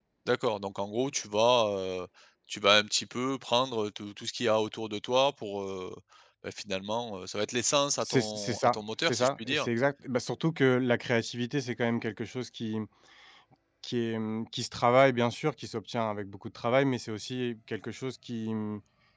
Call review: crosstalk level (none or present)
present